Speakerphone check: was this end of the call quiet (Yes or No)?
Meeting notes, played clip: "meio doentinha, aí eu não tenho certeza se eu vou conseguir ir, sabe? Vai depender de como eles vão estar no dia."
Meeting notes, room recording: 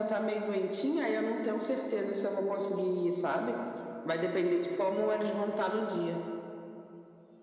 Yes